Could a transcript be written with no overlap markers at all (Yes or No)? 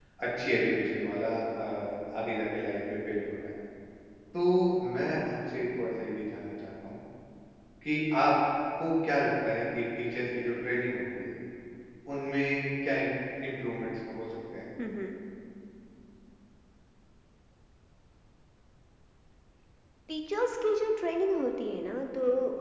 Yes